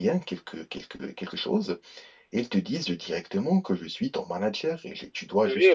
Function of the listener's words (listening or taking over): listening